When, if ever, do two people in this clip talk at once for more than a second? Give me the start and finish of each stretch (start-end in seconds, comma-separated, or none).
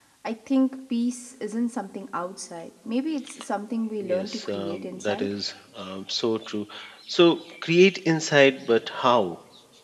4.0-5.3